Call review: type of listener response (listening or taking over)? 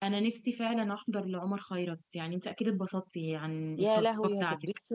taking over